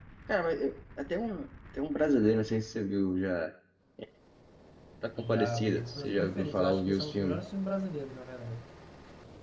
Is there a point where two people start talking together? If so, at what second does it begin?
5.2 s

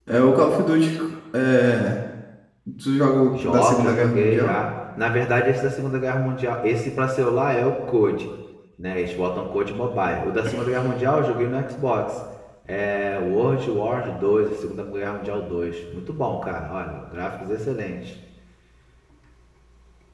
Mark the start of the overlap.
3.4 s

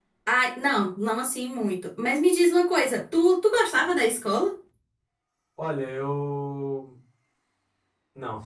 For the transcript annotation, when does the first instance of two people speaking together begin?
none

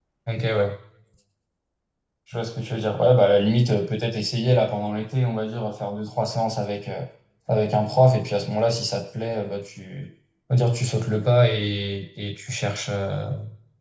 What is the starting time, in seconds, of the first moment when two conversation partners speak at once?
none

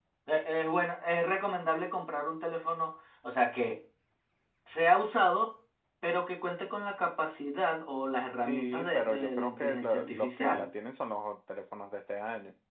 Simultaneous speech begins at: 8.4 s

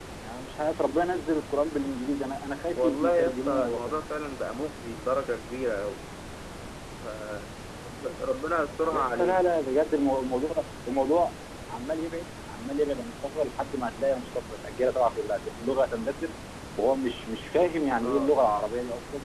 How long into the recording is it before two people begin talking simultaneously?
2.8 s

